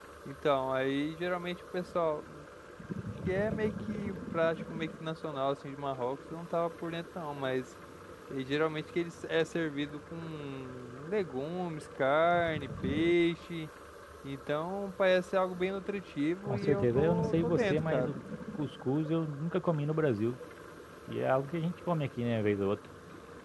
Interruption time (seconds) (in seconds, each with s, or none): 16.4 s